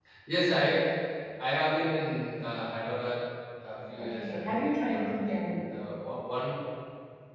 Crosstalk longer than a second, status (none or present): present